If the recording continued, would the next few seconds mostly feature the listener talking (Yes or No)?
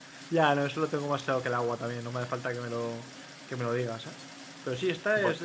No